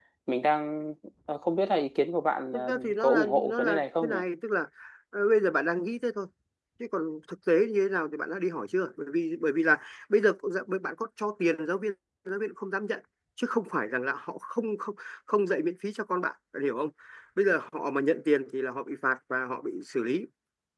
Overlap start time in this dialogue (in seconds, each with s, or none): 2.5 s